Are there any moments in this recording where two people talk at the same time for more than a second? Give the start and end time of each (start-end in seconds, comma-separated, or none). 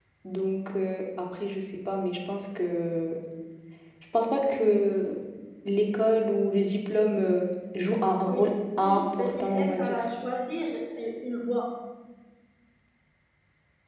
8.2-10.0